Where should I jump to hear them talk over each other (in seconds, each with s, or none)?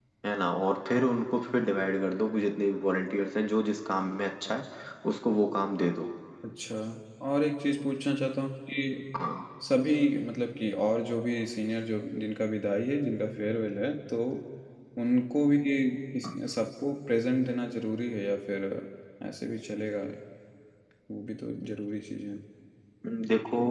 none